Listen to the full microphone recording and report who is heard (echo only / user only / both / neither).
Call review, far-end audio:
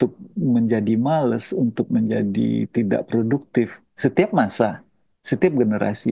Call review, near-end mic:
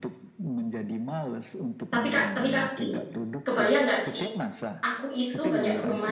both